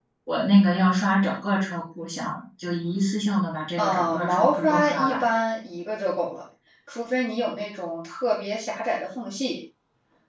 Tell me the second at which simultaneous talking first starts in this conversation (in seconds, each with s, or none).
3.8 s